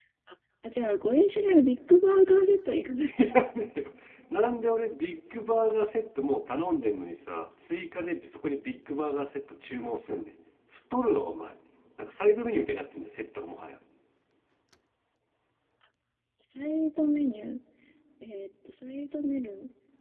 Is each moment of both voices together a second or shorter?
Yes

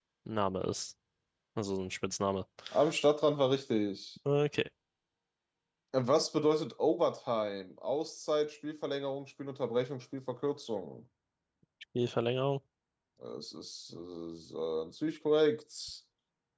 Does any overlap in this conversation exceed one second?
No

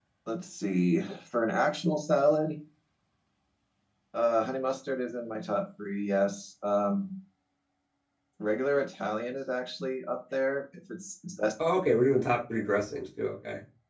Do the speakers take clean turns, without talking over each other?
Yes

